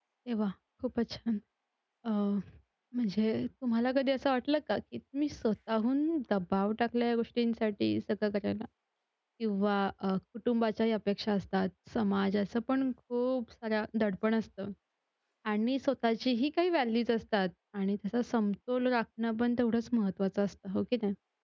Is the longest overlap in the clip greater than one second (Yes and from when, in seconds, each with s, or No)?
No